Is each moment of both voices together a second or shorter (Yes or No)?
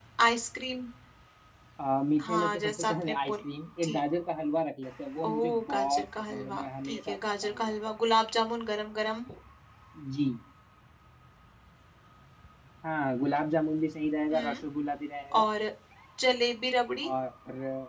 No